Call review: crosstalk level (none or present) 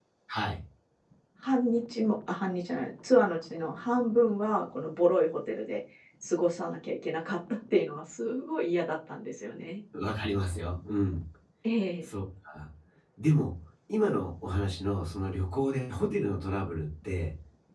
none